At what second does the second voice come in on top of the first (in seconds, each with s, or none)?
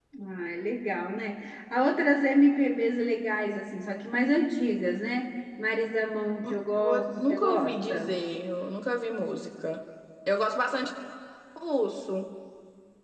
6.4 s